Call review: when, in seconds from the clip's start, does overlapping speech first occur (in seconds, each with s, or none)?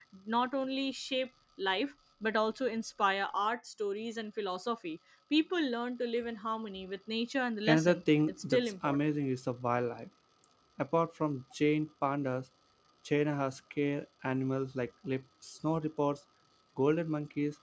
7.7 s